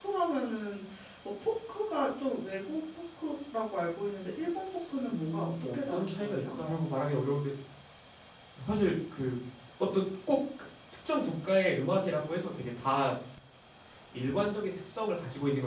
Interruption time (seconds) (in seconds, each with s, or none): 5.1 s